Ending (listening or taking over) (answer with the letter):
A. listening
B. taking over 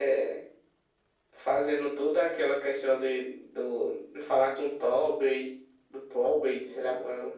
B